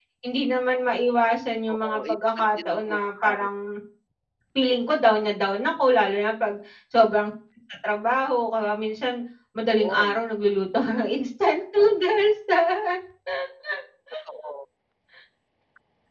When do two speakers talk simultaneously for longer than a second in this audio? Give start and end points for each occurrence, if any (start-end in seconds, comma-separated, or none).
1.7-3.5